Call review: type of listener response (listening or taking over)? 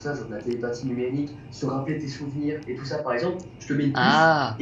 listening